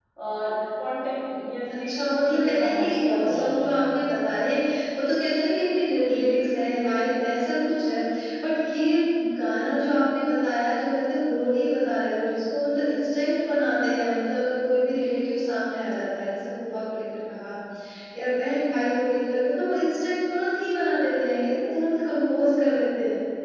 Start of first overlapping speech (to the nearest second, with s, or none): 2 s